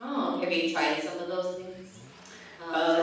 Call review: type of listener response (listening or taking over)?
taking over